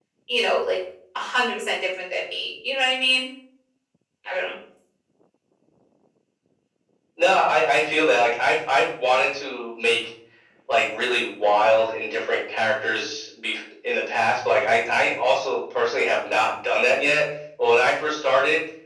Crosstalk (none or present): none